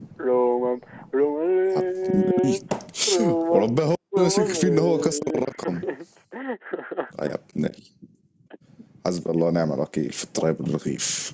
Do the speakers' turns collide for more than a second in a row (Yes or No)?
Yes